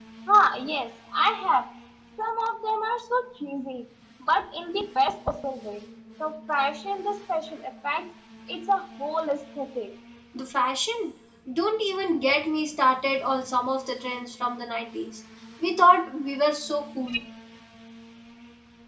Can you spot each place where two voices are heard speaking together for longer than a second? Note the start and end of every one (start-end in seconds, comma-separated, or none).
none